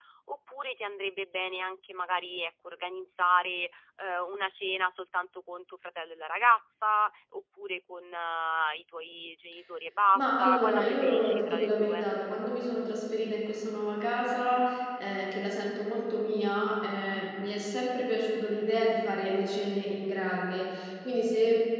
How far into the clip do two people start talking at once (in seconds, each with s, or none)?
10.2 s